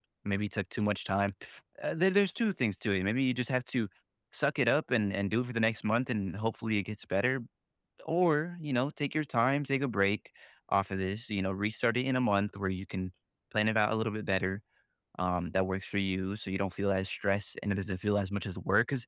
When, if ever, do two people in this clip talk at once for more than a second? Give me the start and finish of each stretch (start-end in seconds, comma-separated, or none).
none